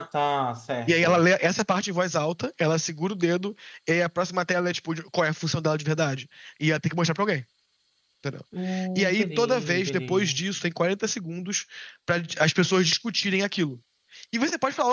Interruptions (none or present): present